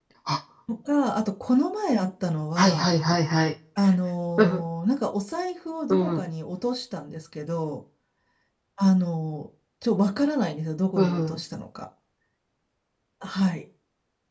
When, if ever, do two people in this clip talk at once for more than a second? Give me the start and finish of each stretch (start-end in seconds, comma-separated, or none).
none